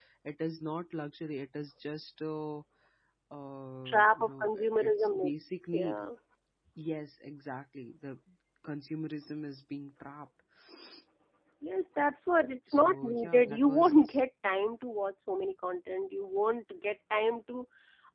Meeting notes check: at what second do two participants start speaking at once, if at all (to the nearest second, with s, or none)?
4 s